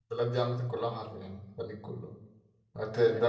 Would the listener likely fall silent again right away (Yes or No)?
Yes